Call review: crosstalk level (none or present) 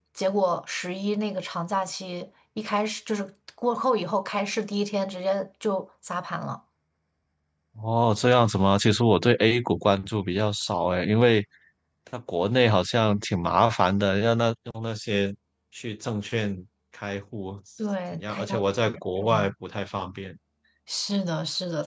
present